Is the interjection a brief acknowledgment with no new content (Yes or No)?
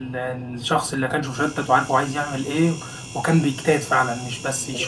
No